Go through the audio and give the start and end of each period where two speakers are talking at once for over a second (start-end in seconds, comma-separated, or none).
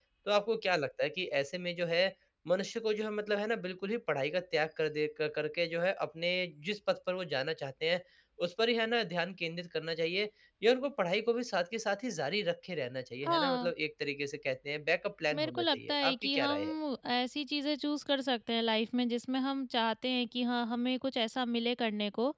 15.3-16.7